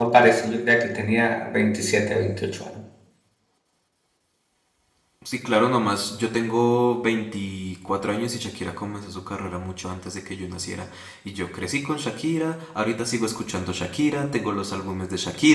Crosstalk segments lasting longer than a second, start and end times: none

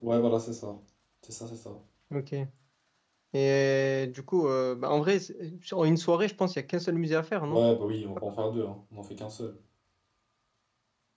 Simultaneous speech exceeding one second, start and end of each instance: none

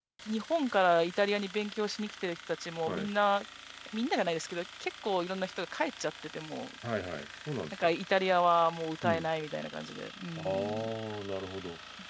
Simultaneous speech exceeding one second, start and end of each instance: none

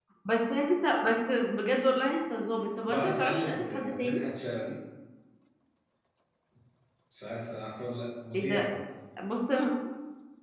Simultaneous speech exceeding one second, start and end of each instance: 2.9-4.2

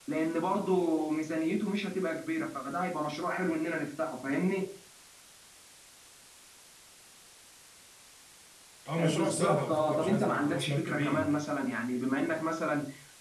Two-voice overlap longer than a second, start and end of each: 9.0-11.3

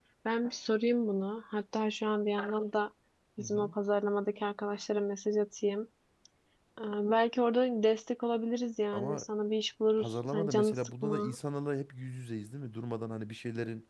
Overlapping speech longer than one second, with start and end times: 10.0-11.3

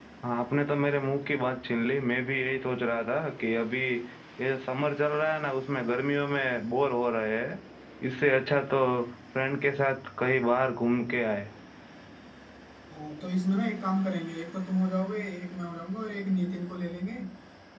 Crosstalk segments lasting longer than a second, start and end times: none

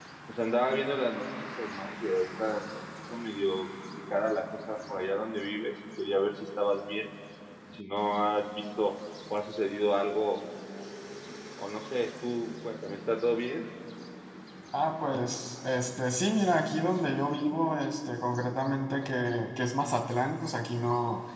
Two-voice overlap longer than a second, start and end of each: none

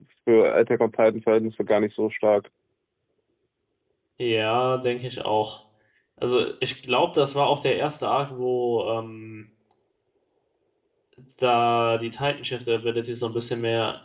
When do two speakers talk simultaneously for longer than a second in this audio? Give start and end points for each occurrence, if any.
none

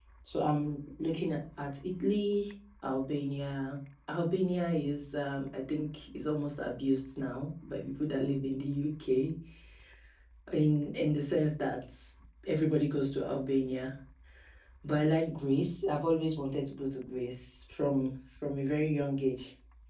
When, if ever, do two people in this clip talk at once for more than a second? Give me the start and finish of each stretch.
none

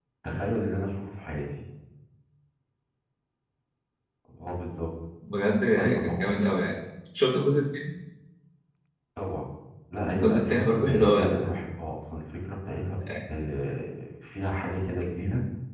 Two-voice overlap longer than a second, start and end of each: 10.1-11.5

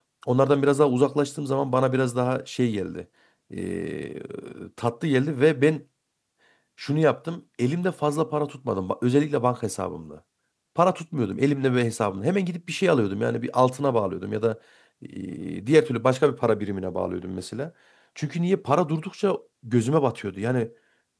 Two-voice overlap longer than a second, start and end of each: none

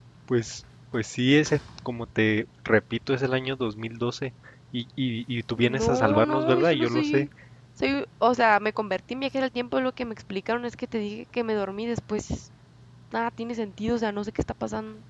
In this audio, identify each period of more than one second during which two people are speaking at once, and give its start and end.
5.6-7.3

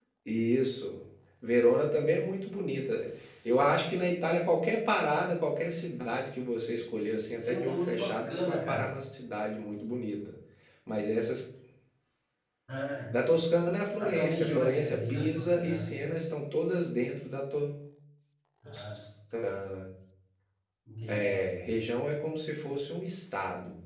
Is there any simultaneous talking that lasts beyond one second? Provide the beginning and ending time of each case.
7.4-8.9, 14.0-15.9

